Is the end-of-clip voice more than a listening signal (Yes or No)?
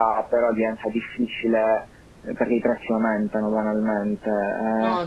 No